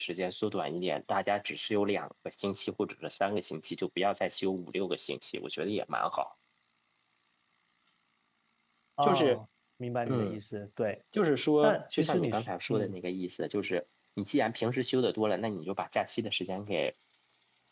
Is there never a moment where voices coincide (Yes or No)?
No